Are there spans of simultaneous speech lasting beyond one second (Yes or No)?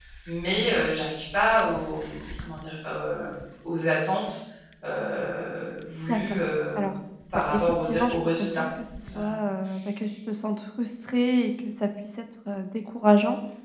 Yes